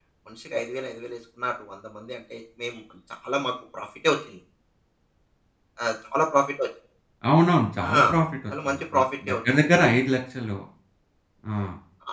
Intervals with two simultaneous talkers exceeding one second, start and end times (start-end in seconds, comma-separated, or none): 8.7-9.9